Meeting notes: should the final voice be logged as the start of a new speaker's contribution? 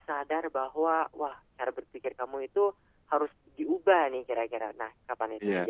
Yes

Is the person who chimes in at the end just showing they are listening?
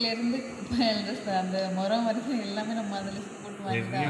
No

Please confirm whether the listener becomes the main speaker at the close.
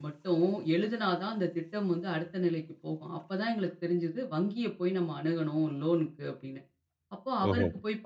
No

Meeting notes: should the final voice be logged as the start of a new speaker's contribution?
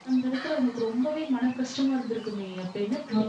Yes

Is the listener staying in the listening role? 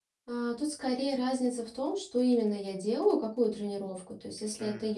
Yes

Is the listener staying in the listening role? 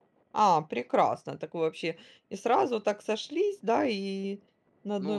No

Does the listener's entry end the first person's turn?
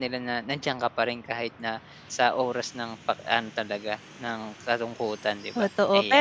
Yes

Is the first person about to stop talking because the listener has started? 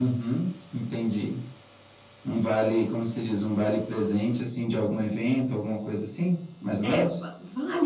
Yes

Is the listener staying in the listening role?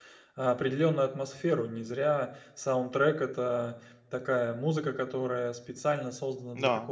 Yes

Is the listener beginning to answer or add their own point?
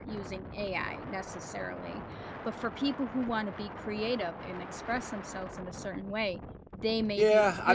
Yes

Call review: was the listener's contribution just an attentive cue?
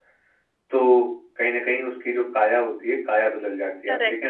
No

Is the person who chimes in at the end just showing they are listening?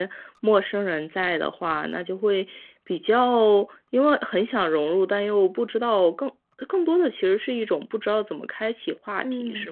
No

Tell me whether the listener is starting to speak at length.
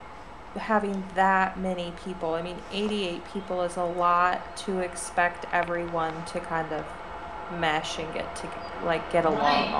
Yes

